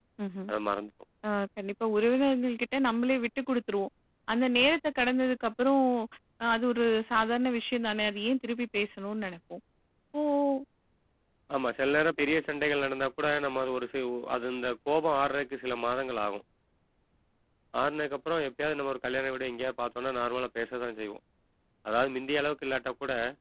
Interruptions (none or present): none